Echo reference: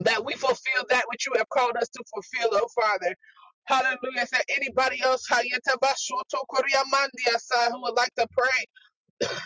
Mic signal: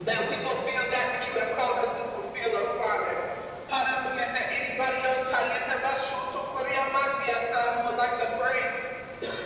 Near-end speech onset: none

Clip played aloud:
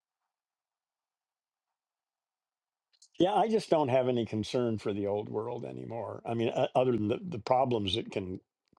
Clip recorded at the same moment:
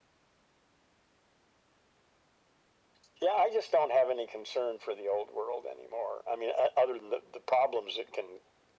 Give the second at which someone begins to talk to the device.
none

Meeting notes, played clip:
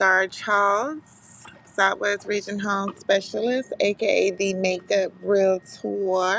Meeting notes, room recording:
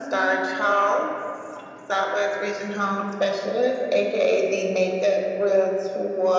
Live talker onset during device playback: none

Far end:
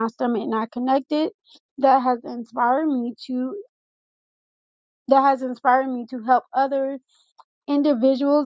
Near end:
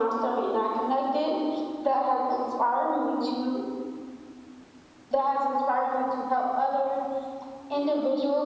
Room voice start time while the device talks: none

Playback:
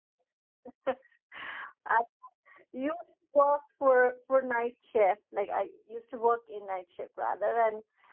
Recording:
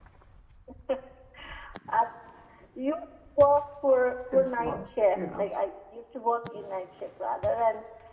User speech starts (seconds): 4.3 s

